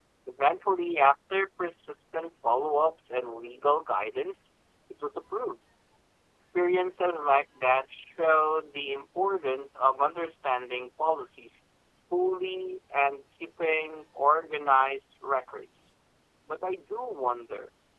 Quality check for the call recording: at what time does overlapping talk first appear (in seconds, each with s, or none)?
none